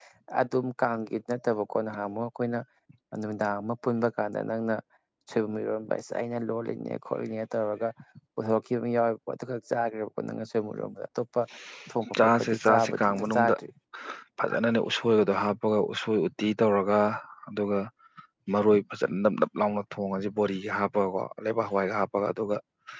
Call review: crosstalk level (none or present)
present